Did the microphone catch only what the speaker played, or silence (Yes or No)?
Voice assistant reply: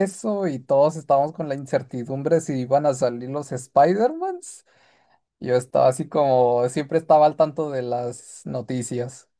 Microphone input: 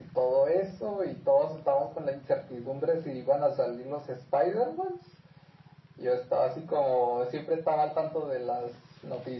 Yes